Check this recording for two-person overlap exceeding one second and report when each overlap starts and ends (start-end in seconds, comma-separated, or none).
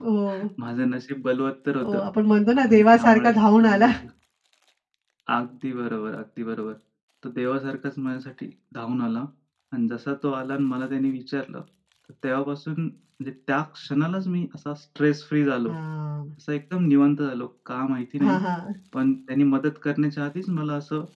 2.6-3.9